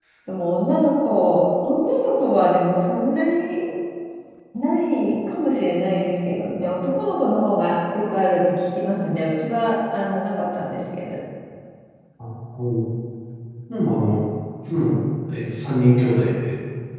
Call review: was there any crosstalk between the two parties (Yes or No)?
No